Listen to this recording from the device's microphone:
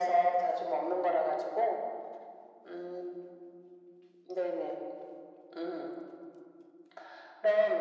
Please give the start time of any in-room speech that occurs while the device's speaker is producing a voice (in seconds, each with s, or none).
none